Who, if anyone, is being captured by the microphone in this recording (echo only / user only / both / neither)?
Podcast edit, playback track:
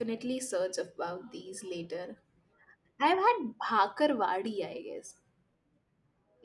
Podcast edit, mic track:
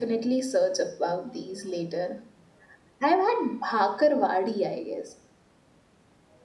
echo only